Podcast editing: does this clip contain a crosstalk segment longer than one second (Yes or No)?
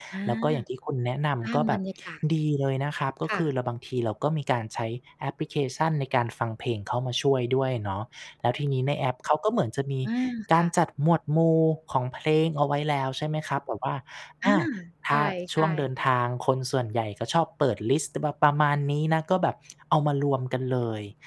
No